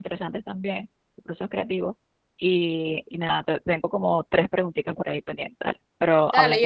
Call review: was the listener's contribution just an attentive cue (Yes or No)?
No